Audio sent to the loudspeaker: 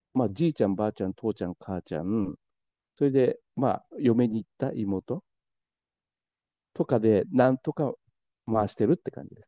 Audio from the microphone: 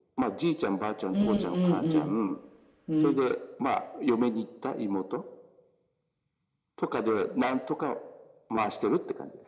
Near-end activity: present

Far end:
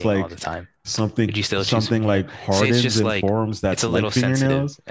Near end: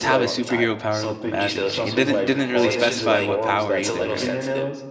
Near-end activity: present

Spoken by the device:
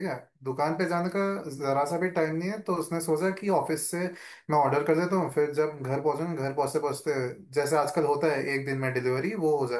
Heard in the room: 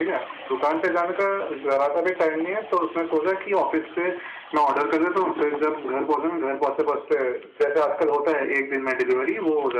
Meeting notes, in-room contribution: none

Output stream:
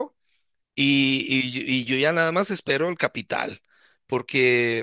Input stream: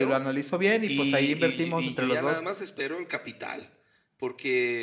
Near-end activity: present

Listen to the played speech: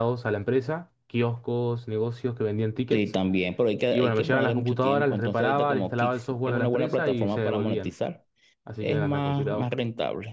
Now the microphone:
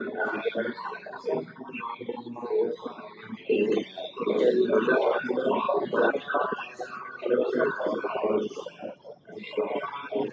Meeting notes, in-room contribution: none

